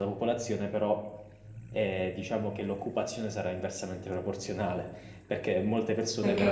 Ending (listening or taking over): taking over